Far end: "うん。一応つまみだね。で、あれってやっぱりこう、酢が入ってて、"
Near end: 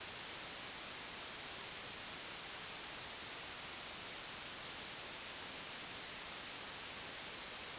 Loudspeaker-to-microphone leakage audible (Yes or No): No